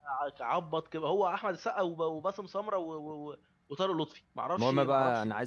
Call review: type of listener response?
taking over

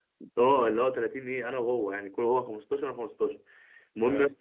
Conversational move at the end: listening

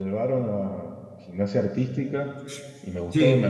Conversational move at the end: listening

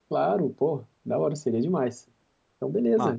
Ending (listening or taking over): listening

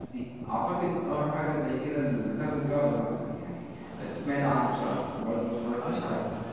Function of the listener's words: taking over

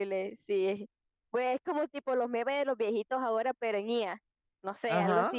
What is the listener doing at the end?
taking over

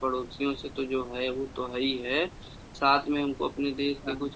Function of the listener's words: listening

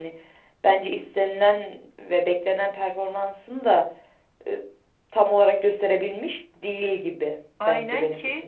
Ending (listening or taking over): taking over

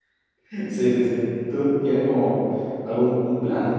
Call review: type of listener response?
taking over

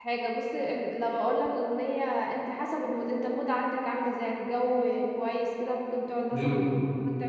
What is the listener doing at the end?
listening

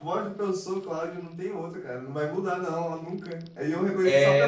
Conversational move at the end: listening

